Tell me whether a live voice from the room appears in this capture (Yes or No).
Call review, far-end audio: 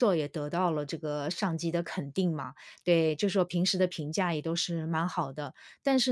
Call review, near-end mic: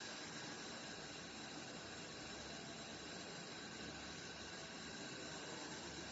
No